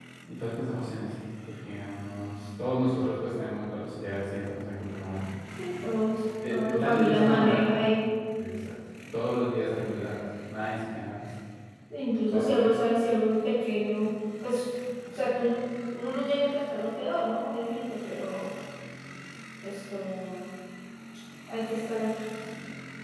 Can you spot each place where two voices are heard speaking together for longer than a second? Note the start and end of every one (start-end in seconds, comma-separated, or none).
6.5-7.7